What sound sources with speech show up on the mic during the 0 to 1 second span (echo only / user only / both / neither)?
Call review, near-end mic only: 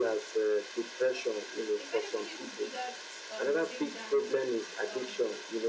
echo only